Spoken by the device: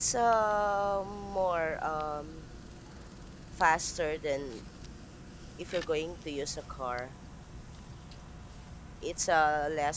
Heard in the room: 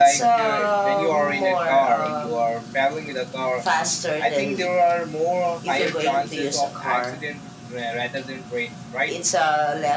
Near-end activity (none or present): present